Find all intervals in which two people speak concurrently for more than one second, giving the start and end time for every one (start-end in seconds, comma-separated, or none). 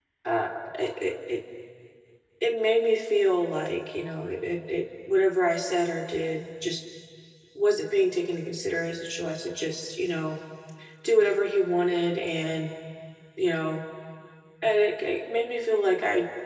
none